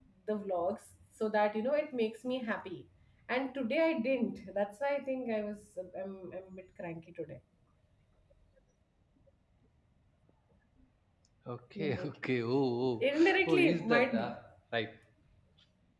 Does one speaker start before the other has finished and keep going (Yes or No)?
Yes